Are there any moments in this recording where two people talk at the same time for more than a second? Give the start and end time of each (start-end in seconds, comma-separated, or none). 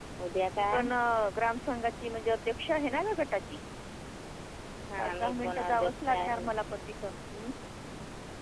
5.0-6.4